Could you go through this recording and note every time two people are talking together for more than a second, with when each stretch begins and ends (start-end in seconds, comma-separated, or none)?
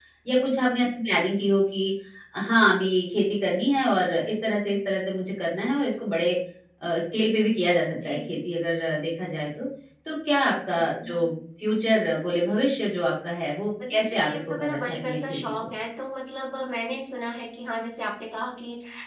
13.9-15.6